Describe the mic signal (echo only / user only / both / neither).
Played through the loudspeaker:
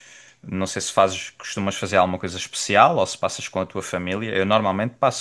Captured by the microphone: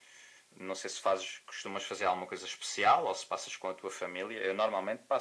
echo only